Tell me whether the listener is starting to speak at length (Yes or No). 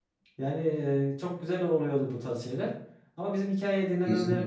No